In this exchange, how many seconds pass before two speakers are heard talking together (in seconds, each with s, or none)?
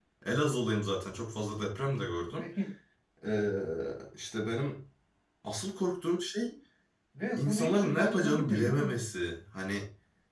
7.4 s